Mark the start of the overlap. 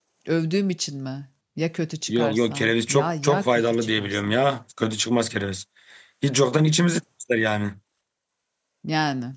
2.1 s

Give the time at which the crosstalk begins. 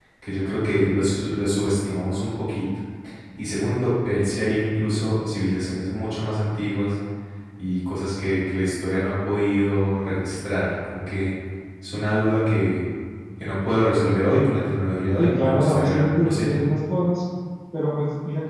15.2 s

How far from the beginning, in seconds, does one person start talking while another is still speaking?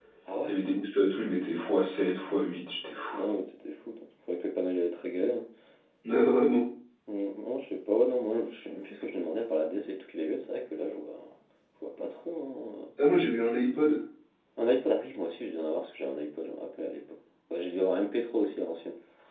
none

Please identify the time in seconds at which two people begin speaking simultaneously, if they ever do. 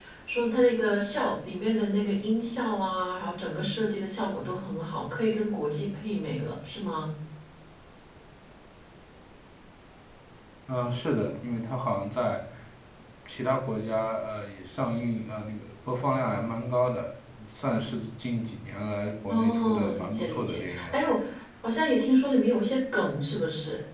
19.3 s

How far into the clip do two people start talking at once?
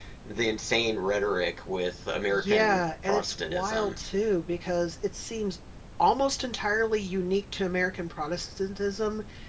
2.3 s

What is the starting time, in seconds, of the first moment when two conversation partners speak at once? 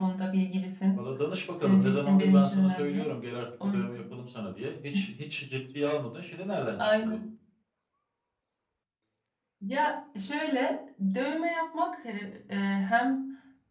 1.6 s

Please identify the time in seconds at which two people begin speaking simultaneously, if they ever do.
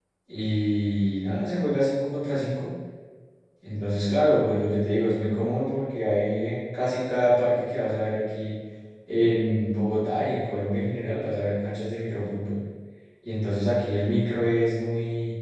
none

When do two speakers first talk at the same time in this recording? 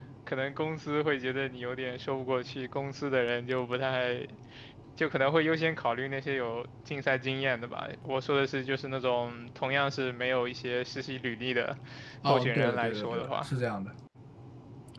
12.2 s

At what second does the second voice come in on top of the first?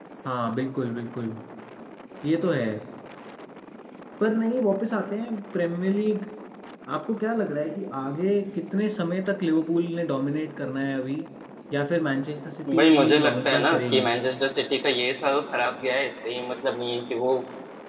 12.7 s

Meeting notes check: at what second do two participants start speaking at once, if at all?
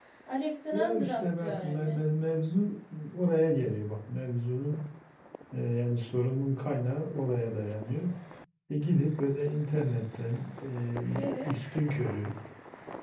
0.7 s

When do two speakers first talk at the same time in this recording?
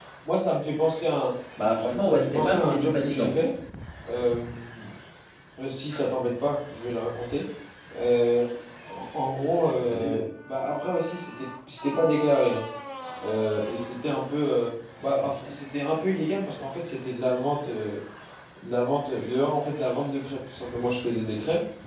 2.0 s

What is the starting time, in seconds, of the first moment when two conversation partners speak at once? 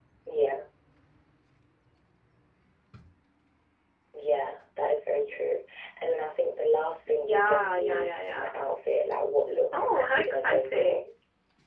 7.1 s

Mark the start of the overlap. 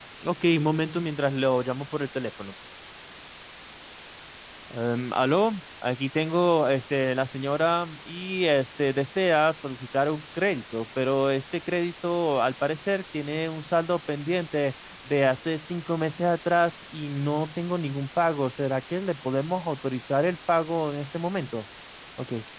none

